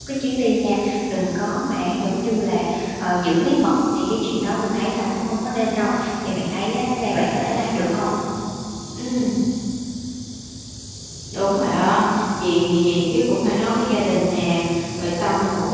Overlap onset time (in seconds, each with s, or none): none